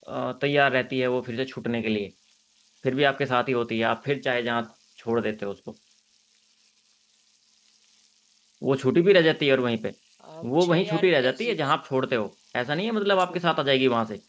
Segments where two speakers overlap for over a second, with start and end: 10.4-11.7

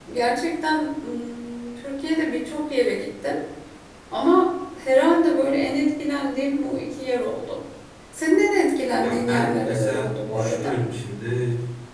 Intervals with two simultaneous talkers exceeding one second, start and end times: 9.0-10.7

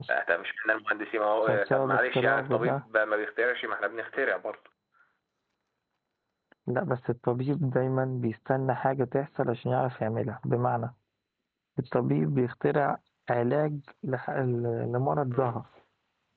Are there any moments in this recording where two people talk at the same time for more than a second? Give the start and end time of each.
1.4-2.8

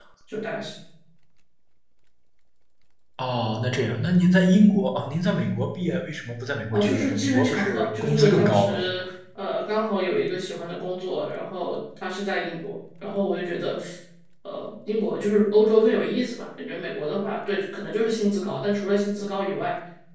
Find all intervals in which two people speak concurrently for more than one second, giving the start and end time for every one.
6.7-8.7

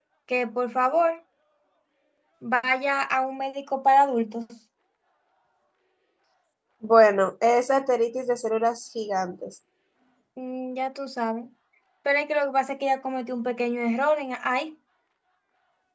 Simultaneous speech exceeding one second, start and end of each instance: none

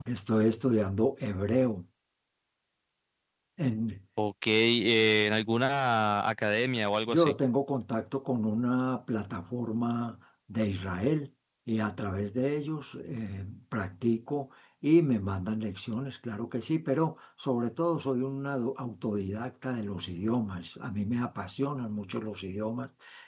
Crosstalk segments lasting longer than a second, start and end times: none

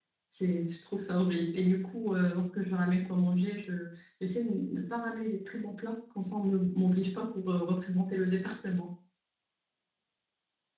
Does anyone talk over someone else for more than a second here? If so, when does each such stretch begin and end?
none

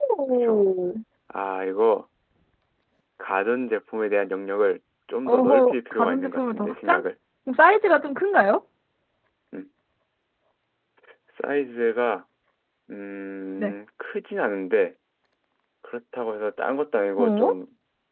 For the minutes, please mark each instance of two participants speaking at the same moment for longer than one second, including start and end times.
5.3-7.0

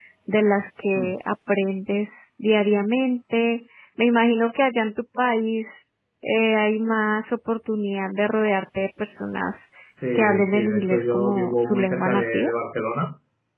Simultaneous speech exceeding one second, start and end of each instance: 10.2-12.5

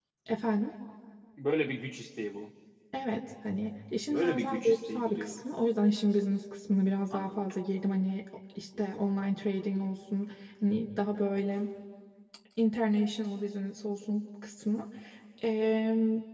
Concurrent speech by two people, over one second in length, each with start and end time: 4.1-5.4

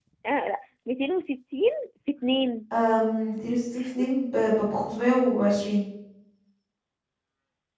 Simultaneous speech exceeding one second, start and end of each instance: none

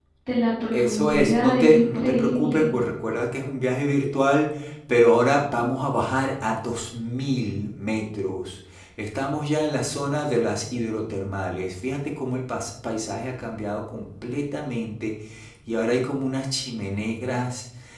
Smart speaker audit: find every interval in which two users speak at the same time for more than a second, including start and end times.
0.7-2.7

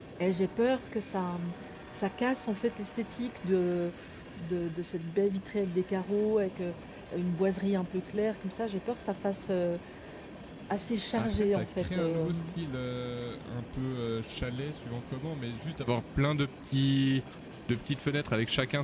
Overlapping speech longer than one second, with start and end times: 11.2-12.4

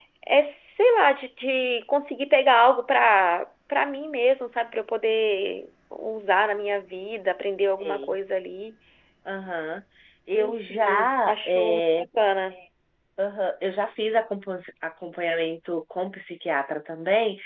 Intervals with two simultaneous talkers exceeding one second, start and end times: 10.4-12.0

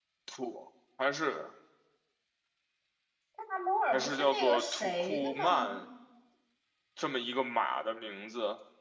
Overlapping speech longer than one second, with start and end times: 3.9-5.8

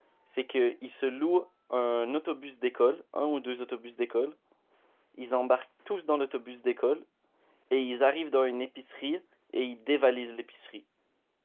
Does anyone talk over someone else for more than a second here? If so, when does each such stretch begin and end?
none

